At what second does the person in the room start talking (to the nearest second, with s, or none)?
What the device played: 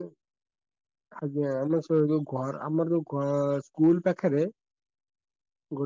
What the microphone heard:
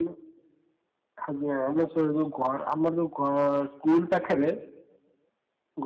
none